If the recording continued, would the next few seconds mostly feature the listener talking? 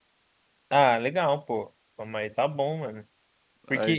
No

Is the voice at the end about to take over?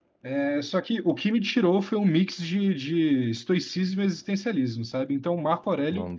No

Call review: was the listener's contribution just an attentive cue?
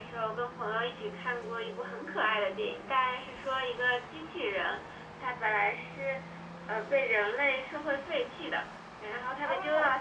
Yes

